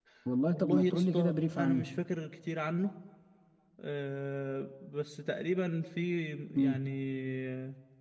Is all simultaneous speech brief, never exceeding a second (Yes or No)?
No